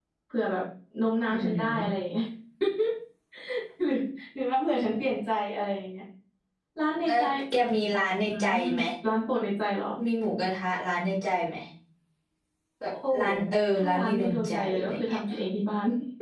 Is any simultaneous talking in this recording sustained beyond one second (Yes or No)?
Yes